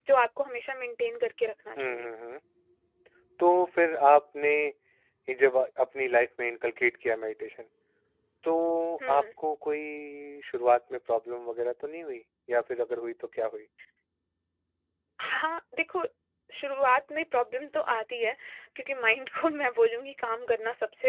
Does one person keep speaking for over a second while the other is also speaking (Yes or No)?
No